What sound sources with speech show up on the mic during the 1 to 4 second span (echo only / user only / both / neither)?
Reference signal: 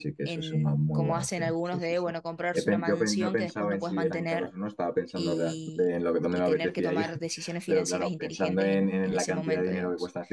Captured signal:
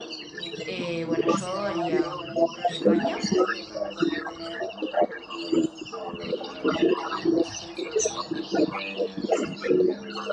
both